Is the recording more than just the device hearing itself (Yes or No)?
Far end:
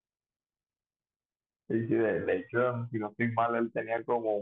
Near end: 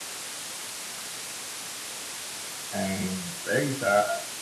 Yes